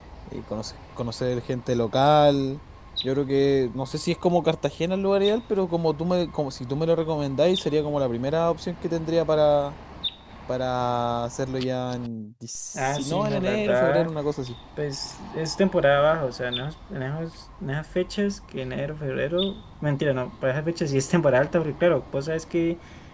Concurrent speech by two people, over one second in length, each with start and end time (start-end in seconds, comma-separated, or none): 12.7-14.1